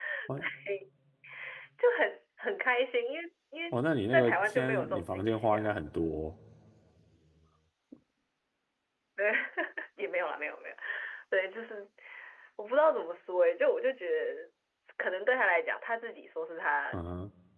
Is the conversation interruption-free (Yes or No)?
No